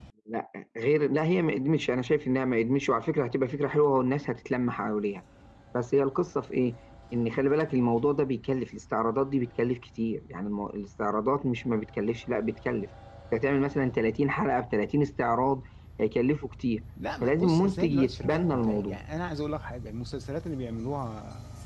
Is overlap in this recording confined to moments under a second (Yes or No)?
No